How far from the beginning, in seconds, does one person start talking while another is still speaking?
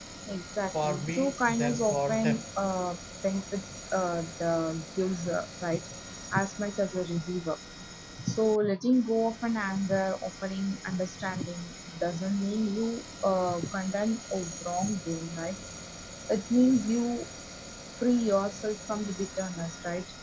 0.8 s

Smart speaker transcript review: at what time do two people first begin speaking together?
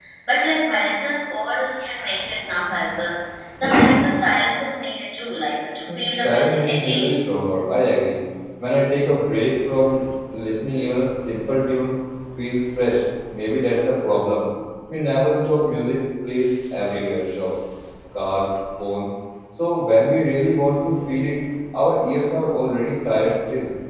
5.9 s

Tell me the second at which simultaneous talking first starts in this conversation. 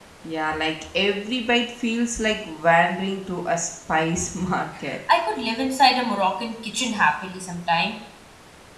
none

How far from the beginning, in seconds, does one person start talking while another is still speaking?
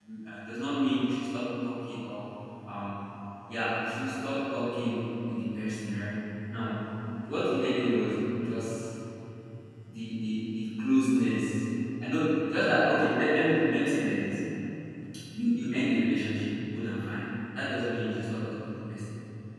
none

